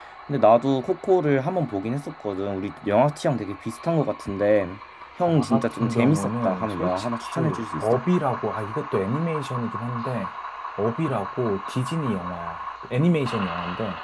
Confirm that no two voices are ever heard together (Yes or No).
No